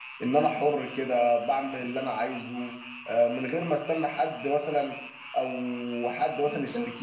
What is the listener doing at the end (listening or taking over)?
listening